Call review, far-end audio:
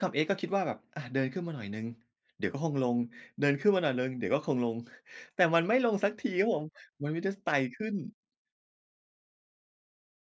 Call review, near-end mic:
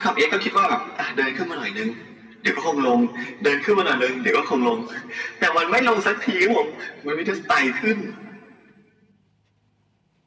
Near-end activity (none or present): none